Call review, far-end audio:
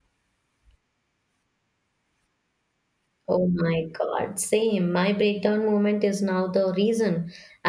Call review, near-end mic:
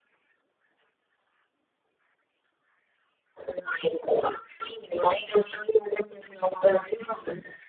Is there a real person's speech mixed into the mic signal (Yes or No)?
No